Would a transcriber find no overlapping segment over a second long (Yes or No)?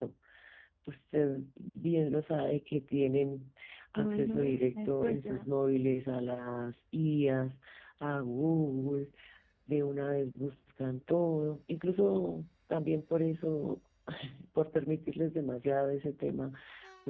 No